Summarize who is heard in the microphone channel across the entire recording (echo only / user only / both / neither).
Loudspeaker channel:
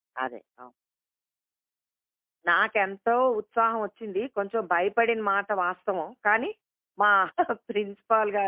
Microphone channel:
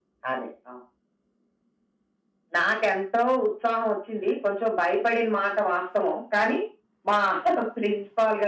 echo only